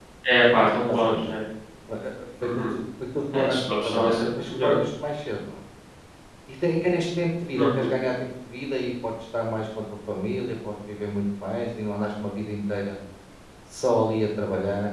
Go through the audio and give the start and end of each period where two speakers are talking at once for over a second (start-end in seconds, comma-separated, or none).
3.3-4.8